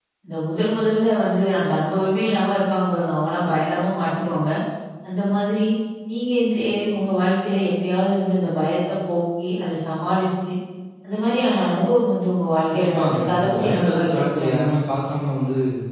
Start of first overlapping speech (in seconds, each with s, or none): 12.7 s